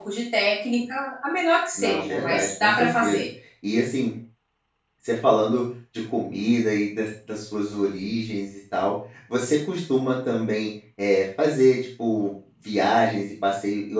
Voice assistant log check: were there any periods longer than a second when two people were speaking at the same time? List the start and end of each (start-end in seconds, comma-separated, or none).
1.8-3.3